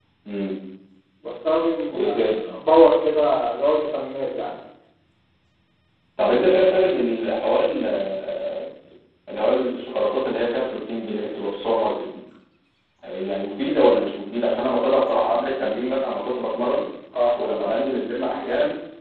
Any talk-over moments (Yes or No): No